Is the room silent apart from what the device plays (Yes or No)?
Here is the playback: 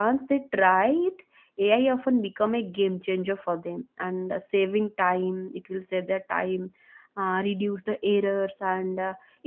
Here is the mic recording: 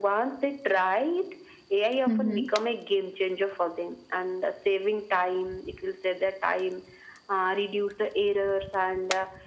No